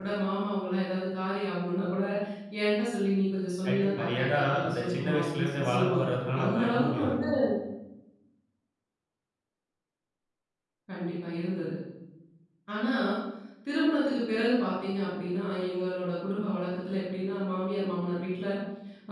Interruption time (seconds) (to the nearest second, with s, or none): 4 s